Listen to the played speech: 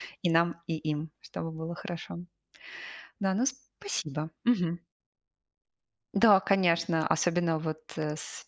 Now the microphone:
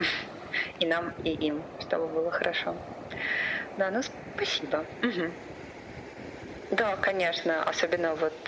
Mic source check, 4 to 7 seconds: echo only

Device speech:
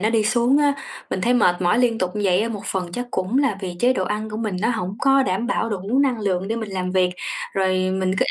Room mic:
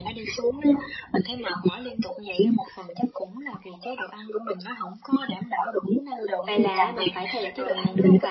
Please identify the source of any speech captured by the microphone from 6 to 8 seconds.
both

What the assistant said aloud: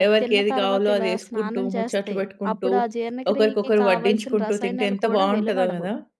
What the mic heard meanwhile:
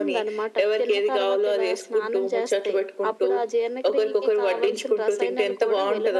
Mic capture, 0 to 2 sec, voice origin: echo only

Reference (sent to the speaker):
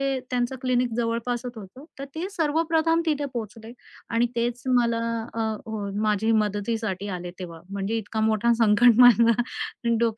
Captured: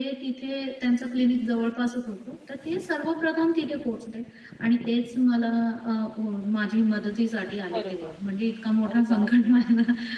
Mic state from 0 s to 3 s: echo only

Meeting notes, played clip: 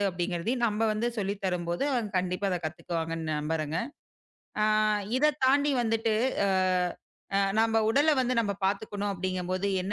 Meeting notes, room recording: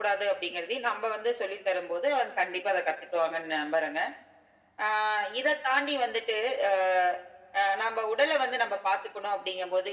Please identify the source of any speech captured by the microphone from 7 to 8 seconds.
echo only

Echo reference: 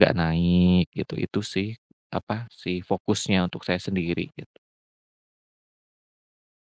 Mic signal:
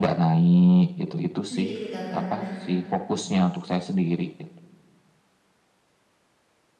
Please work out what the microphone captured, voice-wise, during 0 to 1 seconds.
echo only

